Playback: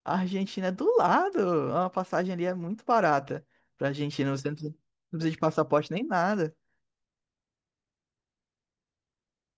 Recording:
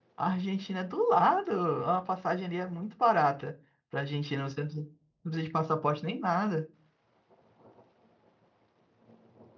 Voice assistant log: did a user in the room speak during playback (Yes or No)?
No